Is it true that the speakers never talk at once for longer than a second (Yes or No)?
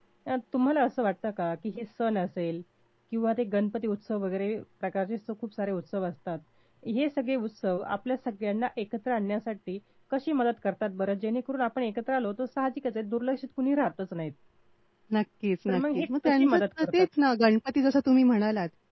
No